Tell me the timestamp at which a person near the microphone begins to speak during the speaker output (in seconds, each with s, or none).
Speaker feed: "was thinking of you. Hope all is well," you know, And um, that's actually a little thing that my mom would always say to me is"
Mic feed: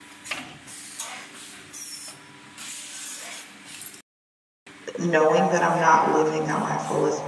4.9 s